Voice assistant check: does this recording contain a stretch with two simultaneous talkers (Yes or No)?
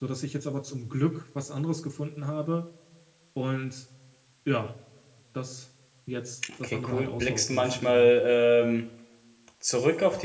Yes